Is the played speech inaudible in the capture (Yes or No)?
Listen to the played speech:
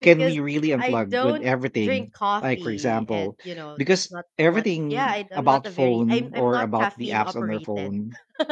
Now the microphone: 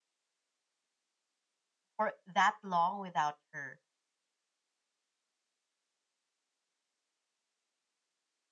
Yes